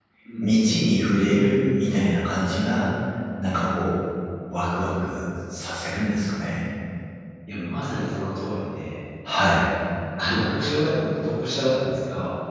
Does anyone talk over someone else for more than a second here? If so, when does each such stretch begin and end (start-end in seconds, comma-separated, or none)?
none